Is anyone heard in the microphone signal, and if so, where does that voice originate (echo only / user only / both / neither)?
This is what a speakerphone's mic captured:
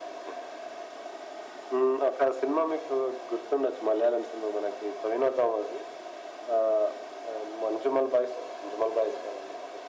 echo only